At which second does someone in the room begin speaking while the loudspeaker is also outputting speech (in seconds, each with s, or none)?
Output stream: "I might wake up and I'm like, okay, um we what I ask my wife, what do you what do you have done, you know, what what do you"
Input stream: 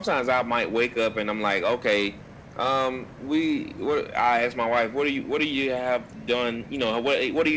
none